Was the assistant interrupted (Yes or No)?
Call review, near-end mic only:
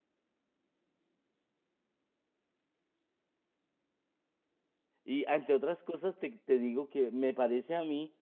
Yes